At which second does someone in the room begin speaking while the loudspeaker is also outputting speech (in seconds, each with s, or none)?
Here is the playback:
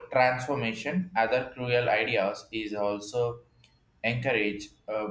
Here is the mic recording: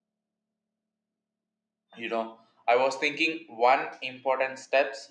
2.0 s